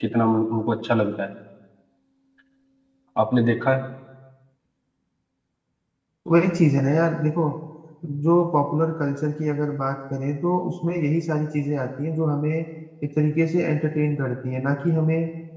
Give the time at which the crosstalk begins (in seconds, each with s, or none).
none